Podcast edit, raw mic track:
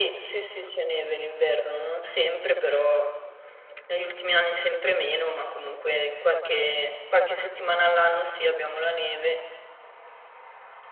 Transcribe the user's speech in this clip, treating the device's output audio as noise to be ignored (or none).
none